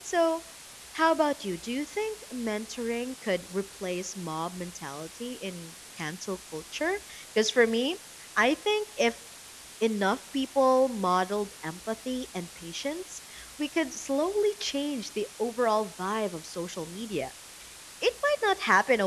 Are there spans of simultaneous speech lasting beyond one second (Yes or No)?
No